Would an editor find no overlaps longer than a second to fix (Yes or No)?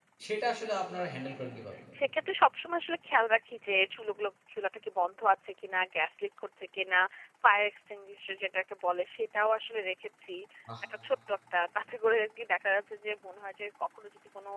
Yes